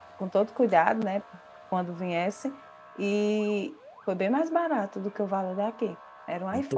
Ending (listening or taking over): taking over